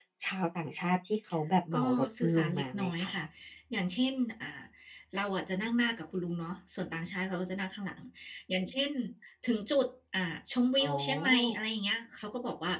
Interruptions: present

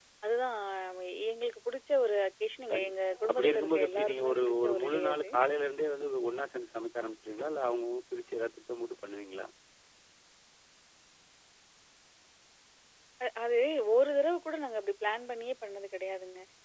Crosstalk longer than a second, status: present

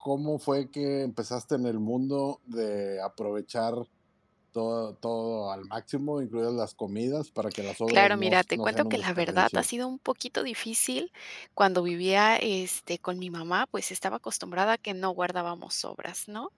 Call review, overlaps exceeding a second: present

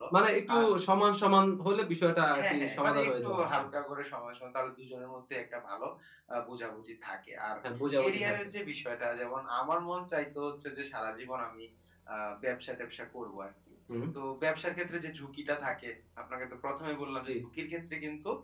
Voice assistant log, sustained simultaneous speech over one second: present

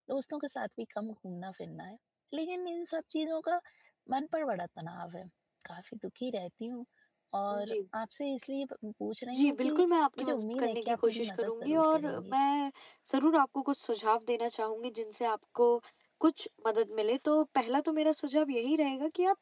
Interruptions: present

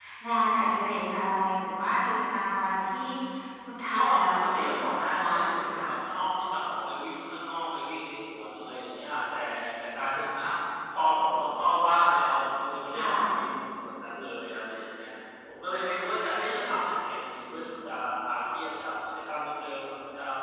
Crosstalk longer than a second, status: present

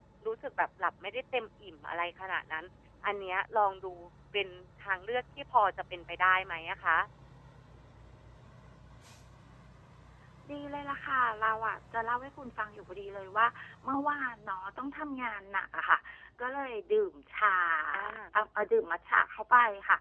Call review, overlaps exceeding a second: none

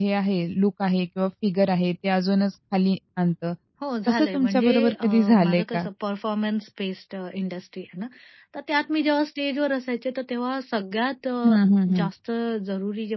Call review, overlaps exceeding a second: present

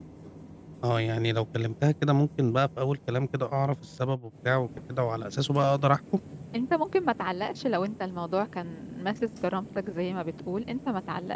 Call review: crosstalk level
none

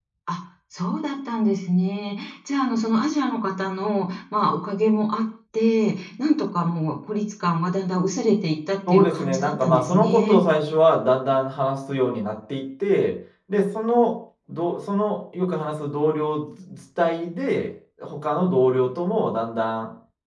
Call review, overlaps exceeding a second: present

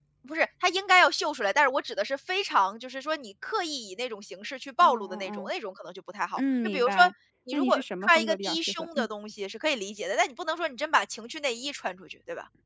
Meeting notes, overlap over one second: present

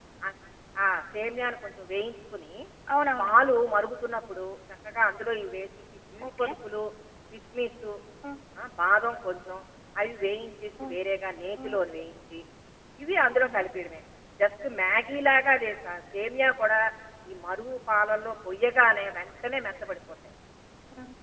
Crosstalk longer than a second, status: none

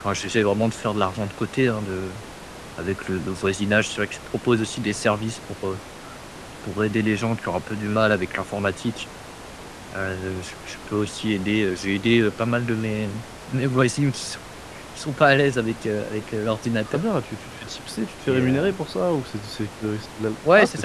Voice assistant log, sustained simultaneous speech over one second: none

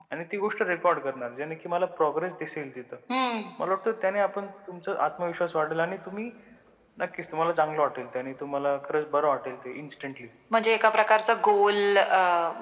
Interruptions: none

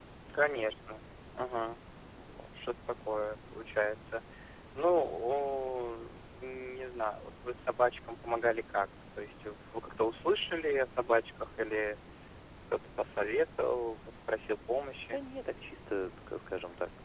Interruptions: none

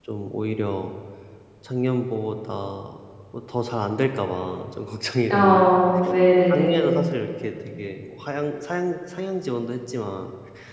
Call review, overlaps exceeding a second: none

